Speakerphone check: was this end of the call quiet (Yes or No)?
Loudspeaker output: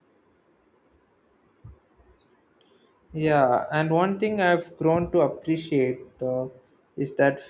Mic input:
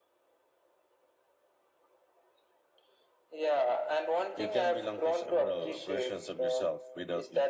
No